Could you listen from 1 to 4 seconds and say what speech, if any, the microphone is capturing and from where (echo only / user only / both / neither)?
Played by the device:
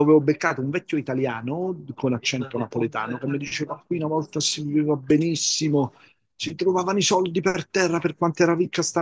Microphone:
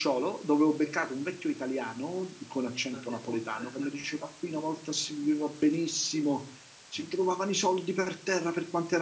echo only